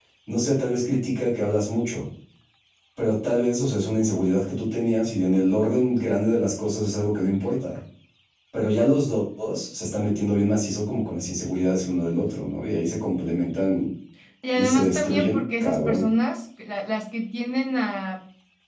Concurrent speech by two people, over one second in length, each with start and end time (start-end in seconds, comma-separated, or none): 14.5-16.1